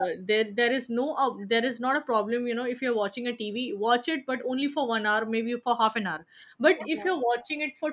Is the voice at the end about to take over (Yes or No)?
No